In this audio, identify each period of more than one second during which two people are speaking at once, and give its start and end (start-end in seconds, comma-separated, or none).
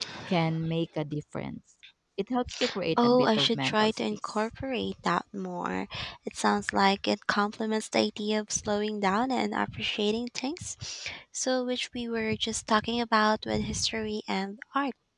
3.0-4.5